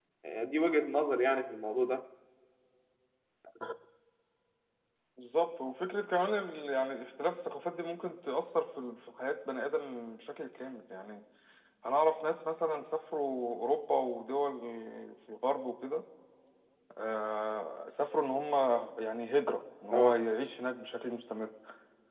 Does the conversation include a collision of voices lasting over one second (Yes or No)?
No